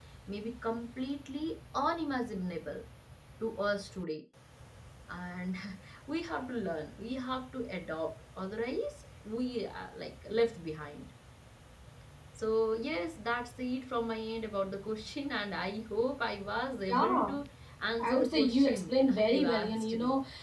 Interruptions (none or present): present